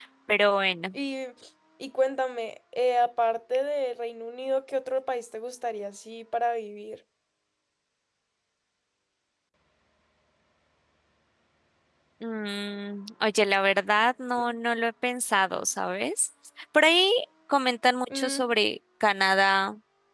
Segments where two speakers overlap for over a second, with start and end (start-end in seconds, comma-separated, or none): none